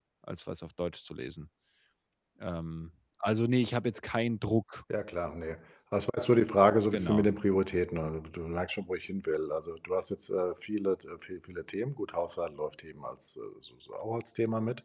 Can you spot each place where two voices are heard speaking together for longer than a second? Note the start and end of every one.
none

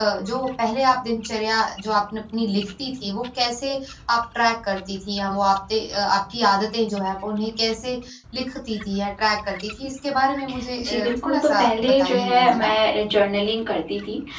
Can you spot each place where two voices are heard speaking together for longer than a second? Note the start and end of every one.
10.8-12.7

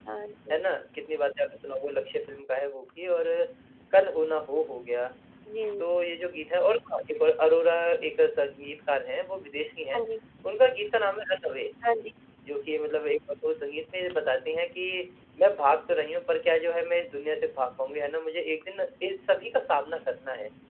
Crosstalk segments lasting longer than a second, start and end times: none

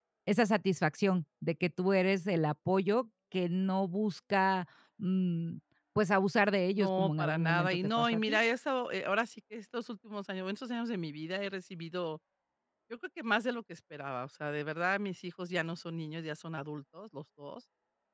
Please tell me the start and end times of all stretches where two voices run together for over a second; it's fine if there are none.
6.8-8.4

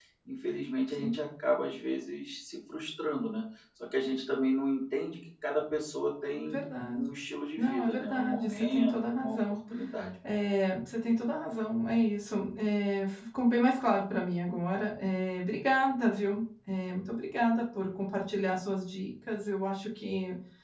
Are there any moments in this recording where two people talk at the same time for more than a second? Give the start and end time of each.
7.6-9.4

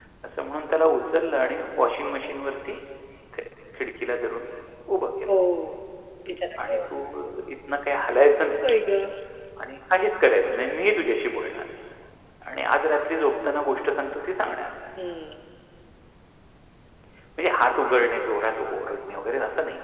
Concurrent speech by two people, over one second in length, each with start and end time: none

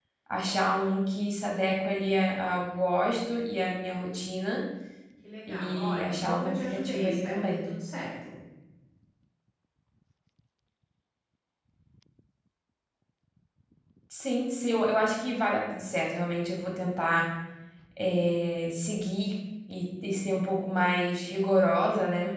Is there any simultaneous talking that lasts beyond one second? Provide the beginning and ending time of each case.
5.5-7.7

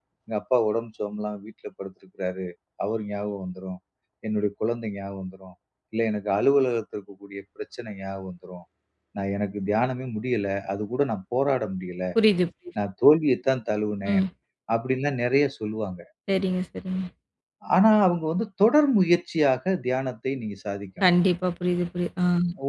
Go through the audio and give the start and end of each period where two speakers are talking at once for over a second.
none

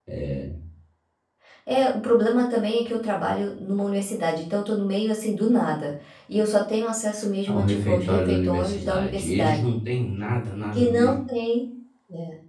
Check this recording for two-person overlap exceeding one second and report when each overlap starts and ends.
7.5-9.6

